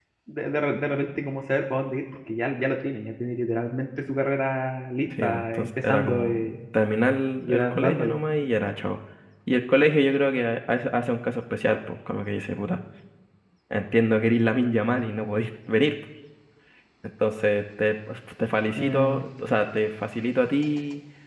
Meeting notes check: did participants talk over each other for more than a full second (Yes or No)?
Yes